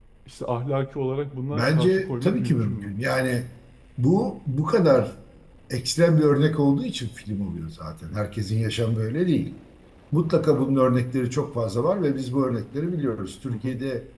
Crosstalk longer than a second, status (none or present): present